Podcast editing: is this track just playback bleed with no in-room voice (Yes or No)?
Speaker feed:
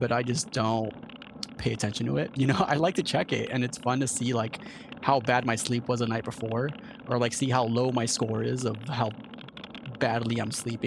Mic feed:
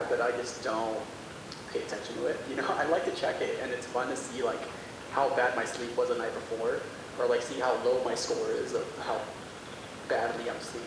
Yes